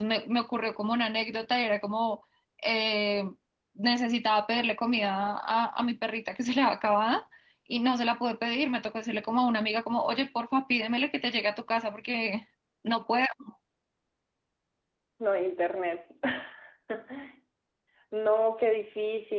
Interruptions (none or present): none